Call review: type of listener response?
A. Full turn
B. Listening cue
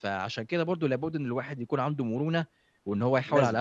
B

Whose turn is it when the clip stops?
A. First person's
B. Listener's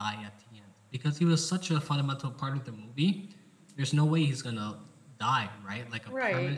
A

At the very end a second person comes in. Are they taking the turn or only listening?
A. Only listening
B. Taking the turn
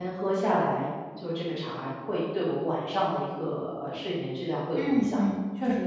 B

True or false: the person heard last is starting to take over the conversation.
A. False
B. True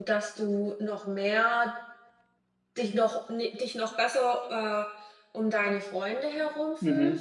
B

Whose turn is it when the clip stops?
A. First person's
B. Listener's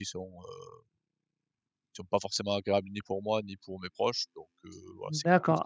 B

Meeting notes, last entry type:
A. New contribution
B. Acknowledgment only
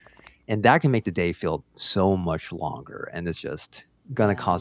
B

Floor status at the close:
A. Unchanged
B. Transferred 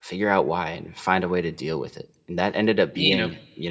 A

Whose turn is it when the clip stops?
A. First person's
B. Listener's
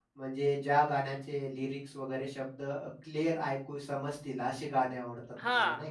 B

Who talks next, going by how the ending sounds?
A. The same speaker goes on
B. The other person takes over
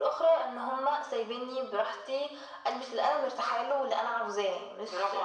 B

